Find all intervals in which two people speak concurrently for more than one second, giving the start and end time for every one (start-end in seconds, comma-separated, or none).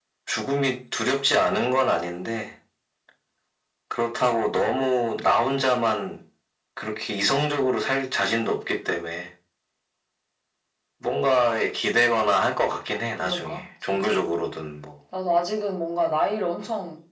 13.1-14.3